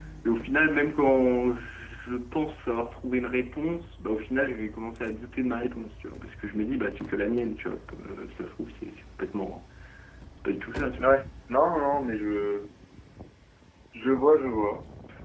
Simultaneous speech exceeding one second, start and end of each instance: none

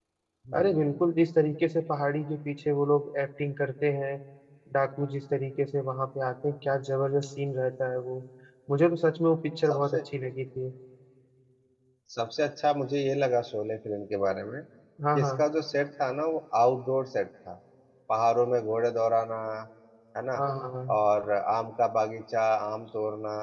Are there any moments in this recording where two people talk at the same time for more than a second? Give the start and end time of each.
none

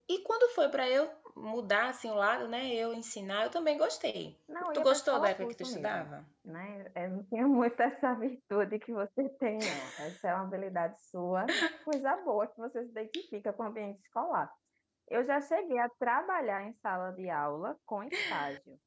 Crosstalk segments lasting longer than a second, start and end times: 4.8-6.1

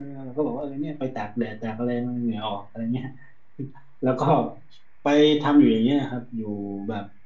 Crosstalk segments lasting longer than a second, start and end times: none

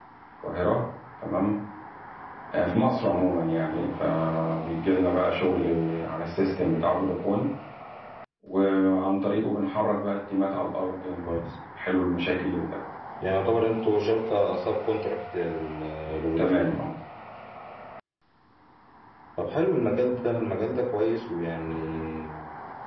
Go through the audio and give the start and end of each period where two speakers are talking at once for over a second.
none

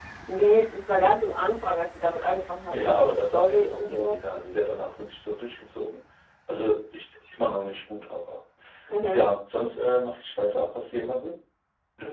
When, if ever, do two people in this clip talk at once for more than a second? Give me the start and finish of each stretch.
2.7-4.2

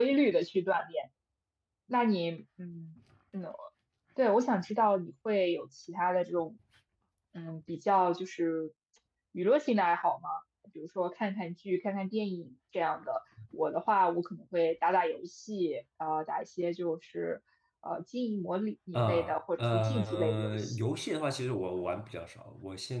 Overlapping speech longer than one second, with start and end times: 18.9-20.9

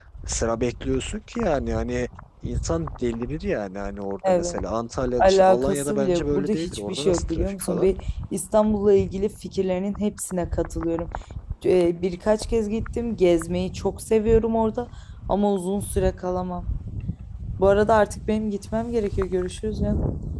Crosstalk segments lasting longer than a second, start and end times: 5.2-7.9

